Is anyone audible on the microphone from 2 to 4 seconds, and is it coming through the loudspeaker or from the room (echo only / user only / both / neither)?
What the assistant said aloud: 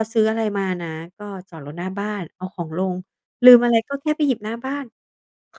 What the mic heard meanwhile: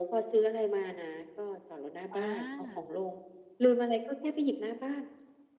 both